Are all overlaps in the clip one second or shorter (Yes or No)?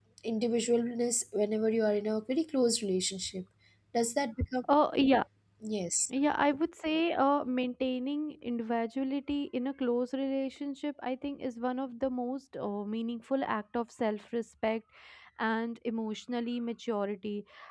Yes